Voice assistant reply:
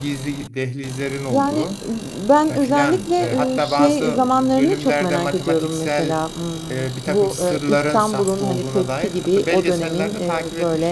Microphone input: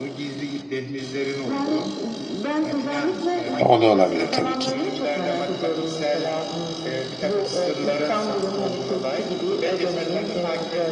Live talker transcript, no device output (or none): O da olabilir tabii ki.